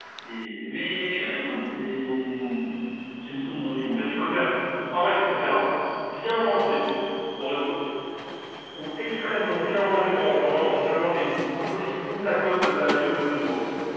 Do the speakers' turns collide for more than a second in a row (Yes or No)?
No